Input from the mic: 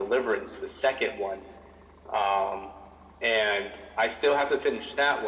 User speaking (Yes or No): No